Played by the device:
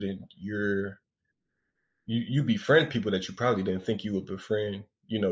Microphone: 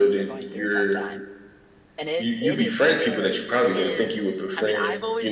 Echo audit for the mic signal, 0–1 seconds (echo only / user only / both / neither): both